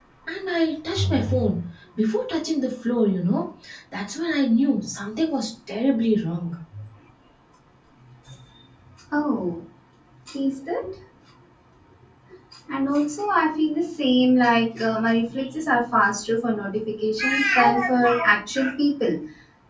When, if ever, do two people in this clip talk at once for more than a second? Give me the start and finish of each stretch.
none

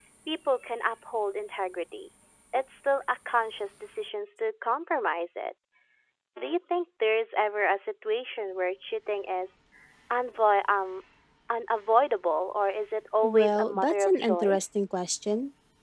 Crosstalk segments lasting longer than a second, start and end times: 13.2-14.6

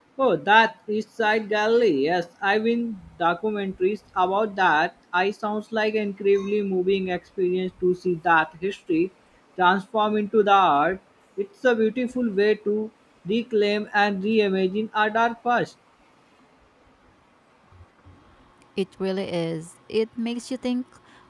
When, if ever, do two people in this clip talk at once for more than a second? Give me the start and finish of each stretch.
none

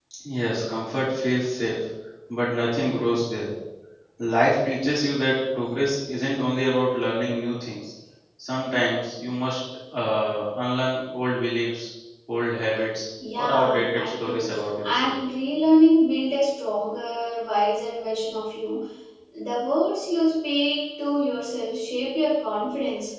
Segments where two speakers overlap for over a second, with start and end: 13.4-15.2

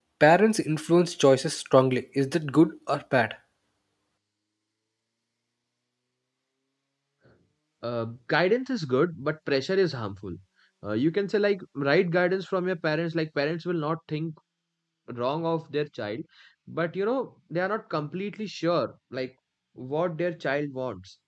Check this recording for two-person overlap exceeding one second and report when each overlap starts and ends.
none

